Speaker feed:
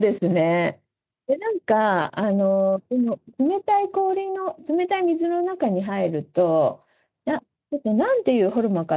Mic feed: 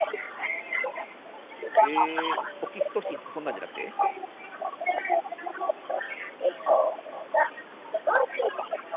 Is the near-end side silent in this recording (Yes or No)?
No